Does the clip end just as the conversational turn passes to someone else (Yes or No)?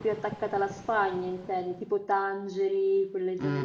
Yes